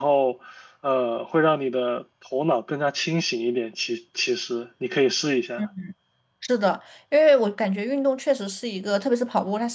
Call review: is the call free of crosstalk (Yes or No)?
Yes